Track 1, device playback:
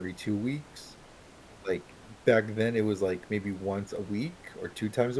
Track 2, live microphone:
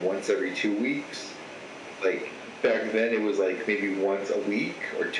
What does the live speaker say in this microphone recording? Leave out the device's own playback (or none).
none